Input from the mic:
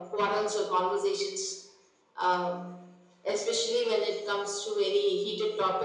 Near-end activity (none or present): none